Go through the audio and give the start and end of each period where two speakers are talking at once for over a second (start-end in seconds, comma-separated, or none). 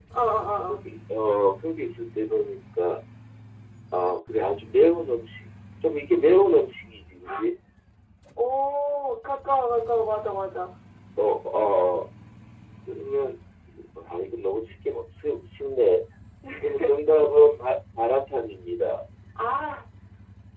none